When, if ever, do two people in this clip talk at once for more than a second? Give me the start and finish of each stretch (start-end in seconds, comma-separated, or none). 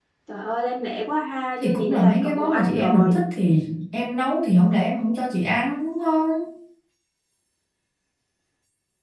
1.6-3.1